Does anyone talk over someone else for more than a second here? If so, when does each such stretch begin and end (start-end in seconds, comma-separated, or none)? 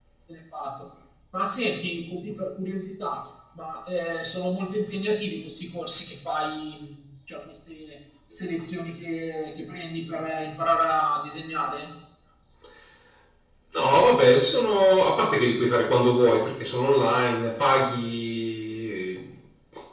none